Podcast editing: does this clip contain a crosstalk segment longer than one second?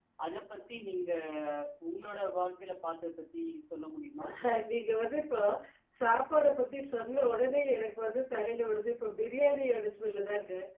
No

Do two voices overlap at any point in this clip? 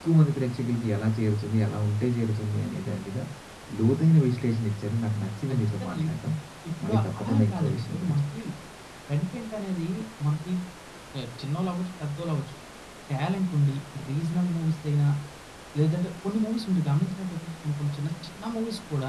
Yes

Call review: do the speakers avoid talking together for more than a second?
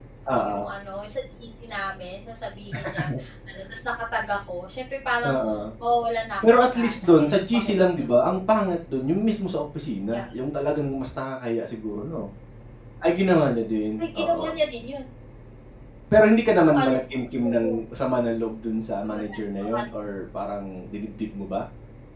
No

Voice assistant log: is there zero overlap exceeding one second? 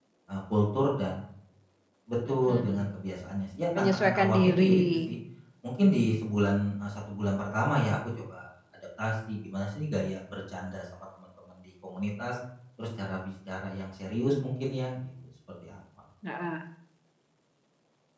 No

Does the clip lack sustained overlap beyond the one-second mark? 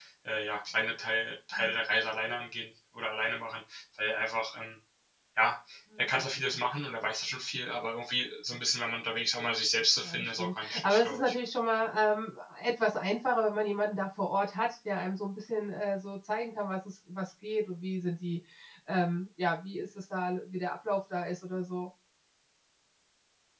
No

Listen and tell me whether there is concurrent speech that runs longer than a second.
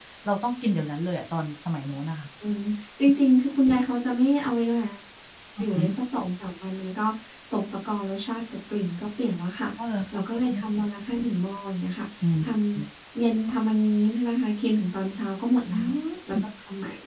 No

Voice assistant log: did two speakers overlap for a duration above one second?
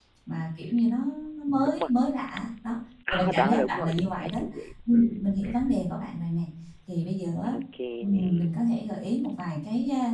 Yes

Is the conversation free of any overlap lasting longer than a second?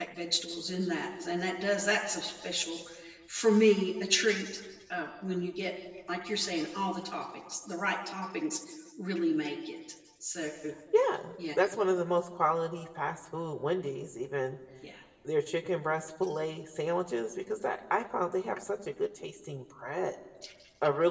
Yes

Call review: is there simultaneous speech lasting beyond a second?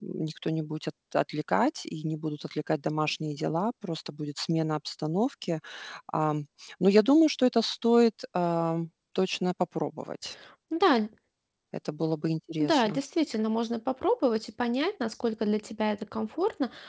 No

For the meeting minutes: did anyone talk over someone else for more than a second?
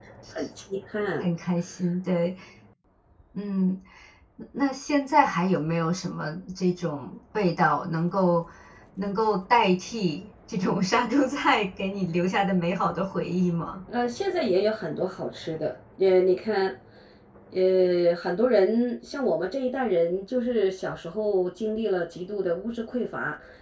No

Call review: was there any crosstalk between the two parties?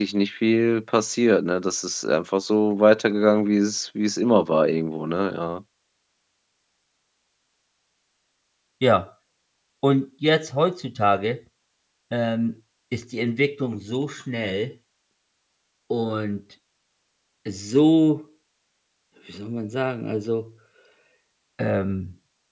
No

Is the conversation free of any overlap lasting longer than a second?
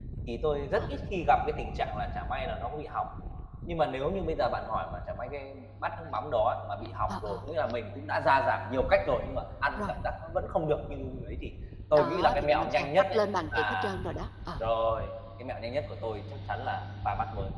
No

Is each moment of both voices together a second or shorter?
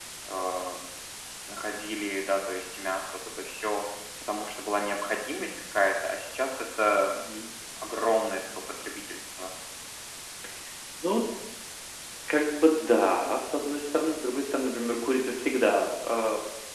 Yes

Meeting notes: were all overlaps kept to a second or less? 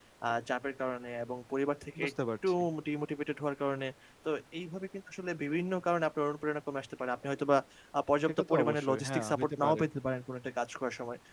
No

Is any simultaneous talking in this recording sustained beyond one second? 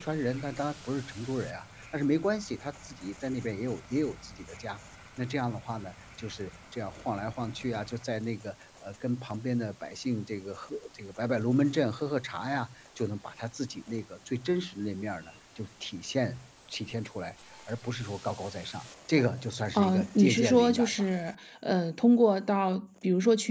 Yes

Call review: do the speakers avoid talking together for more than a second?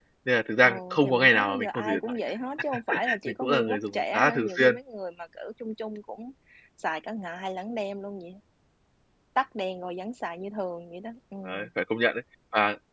No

